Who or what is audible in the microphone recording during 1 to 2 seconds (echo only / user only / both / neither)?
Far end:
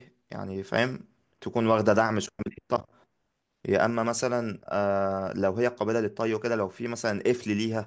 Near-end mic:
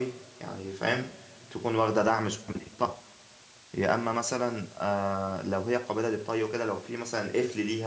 echo only